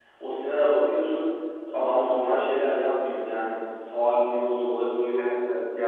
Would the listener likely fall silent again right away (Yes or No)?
No